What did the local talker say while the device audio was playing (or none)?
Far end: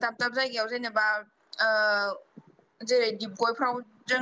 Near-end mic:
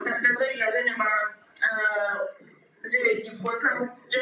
none